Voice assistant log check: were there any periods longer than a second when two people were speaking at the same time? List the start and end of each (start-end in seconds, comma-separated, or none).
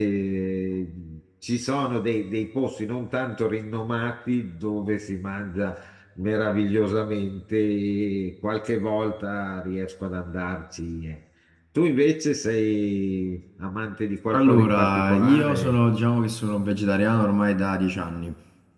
14.3-15.8